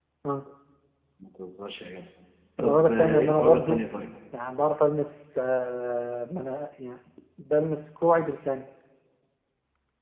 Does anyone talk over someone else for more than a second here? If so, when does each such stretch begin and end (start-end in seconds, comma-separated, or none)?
2.6-3.9